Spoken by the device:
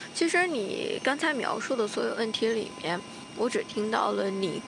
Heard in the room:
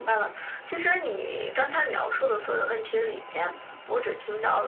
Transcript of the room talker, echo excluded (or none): none